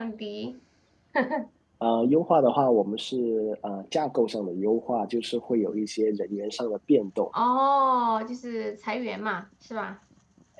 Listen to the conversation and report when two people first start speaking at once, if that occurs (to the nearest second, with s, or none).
none